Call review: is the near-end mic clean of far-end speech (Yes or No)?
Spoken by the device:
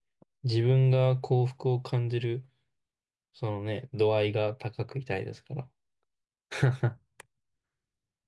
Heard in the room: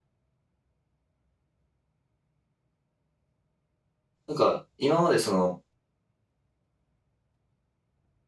Yes